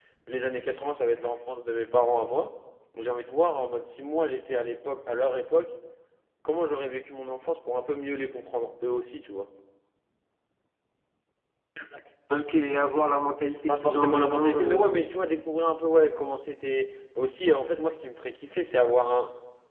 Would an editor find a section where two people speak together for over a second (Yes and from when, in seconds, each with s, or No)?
Yes, from 13.7 s